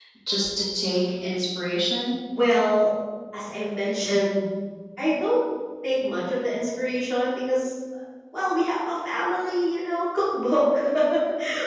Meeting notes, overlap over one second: none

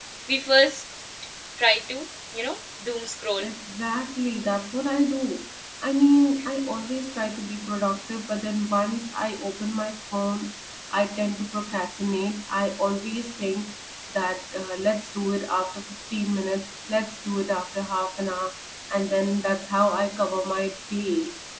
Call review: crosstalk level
none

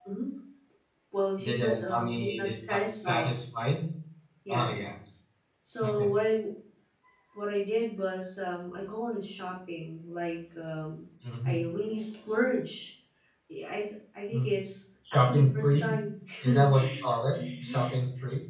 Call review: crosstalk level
present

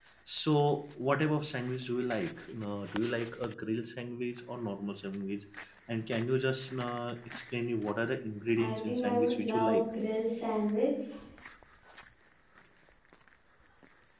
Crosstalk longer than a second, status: present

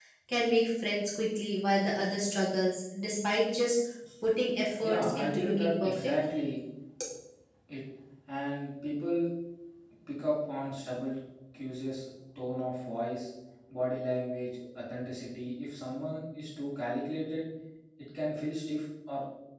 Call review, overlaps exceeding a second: present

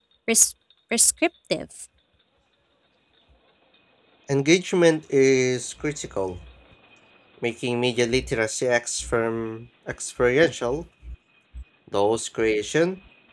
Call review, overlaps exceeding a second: none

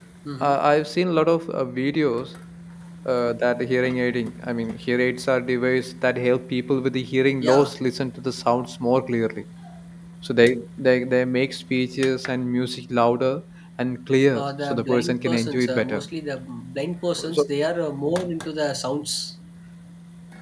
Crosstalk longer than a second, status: present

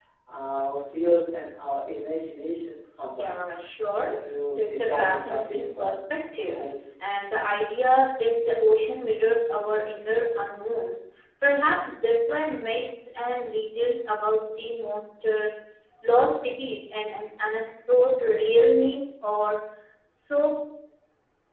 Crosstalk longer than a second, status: present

